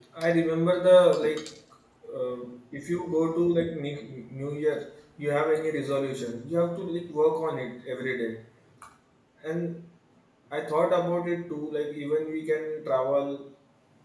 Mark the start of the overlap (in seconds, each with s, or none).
none